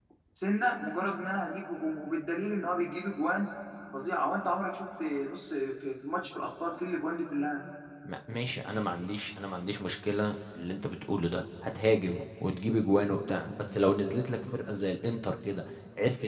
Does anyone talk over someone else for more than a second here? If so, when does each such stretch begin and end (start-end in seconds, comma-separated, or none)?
none